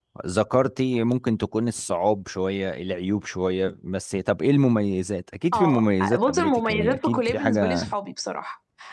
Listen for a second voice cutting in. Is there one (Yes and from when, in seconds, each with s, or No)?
Yes, from 5.5 s